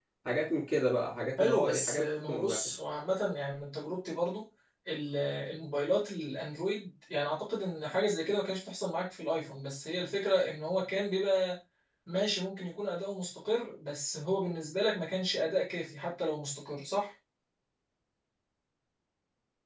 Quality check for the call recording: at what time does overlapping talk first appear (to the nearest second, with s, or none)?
1 s